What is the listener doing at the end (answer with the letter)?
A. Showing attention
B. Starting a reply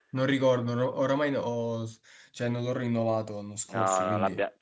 B